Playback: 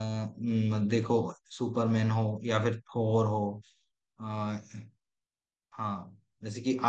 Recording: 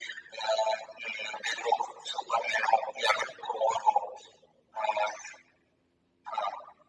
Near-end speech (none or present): none